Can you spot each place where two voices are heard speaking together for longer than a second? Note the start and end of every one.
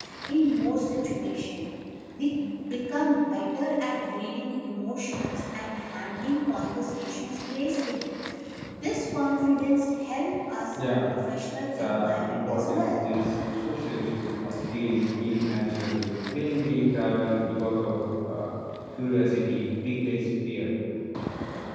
11.8-13.1

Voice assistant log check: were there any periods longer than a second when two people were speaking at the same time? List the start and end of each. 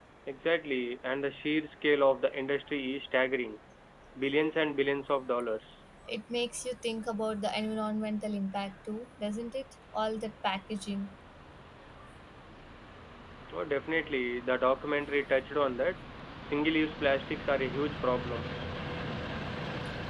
none

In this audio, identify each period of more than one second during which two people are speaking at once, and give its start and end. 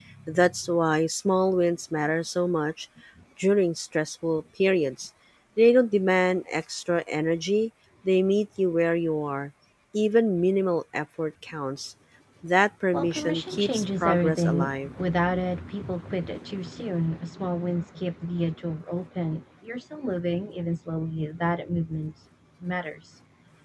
12.9-14.9

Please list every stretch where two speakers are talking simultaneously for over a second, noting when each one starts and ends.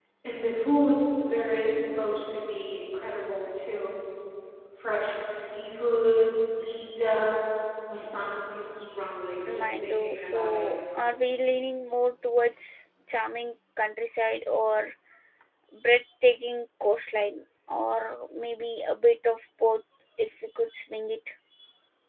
9.5-10.7

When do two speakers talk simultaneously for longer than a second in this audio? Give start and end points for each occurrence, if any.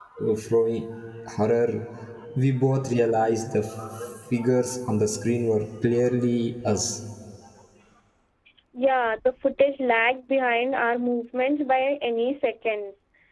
none

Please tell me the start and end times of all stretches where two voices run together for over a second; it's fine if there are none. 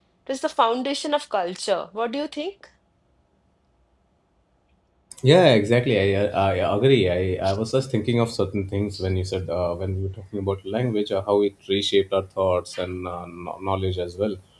none

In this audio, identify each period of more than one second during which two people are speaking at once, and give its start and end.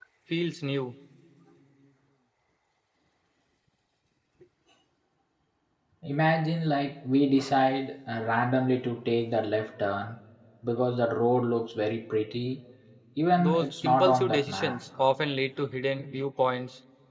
13.4-14.8

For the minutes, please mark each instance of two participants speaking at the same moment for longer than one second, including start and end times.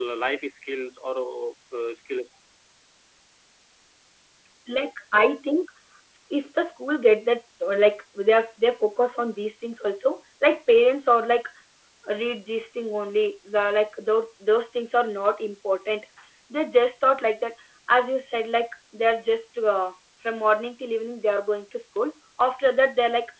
none

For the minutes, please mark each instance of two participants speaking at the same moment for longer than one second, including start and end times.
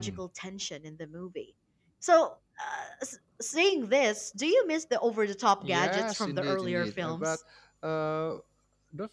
5.6-7.4

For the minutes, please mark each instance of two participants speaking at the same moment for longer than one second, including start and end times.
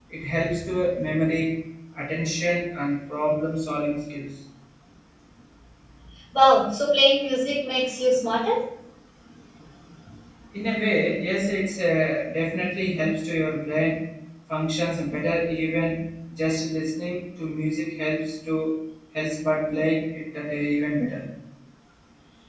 none

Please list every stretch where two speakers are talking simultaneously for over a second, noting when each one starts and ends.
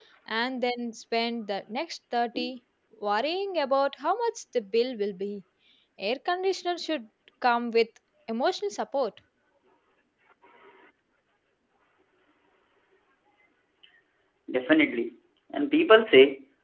none

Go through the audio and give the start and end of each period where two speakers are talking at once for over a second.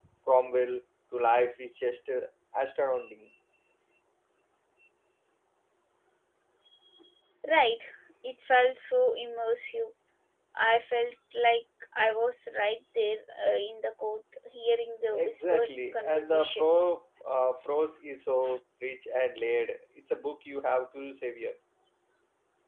15.1-16.7

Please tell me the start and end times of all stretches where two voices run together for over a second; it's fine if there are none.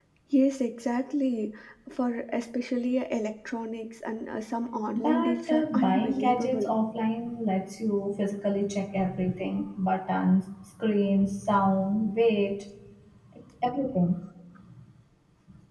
4.9-6.7

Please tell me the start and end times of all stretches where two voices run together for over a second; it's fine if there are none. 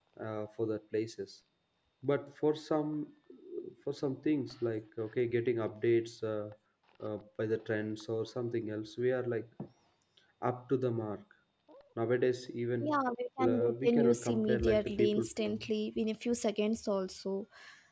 13.5-15.6

